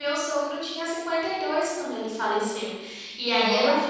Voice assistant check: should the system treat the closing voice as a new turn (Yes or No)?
No